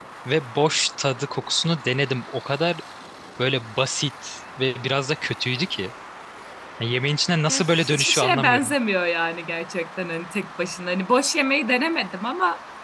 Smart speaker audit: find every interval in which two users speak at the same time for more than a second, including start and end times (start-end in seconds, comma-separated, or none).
7.5-8.7